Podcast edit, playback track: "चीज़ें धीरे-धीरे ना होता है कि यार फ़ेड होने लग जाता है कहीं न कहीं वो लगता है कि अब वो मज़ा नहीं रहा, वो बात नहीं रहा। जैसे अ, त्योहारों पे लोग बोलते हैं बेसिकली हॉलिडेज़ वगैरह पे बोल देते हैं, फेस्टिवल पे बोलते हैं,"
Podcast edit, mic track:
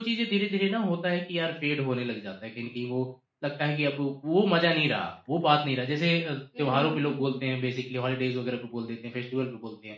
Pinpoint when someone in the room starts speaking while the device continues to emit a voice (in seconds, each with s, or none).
6.5 s